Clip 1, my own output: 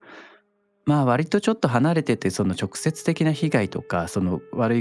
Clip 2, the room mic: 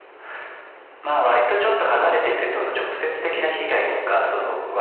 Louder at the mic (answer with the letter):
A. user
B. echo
B